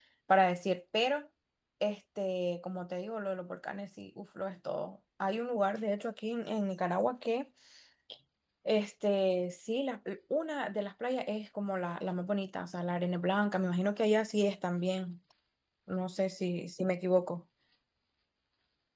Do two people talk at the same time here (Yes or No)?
No